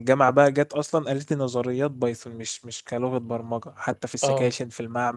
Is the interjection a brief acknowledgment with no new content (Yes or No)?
Yes